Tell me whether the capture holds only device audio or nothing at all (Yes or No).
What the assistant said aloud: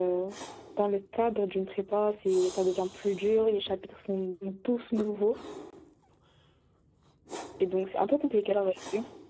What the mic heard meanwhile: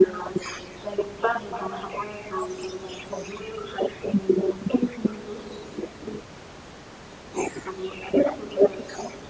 Yes